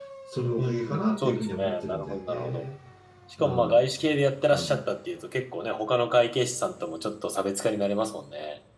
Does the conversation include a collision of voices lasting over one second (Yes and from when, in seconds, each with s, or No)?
Yes, from 0.6 s